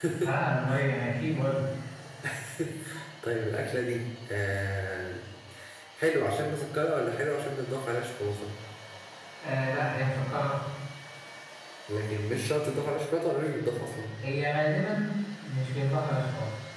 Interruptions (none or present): none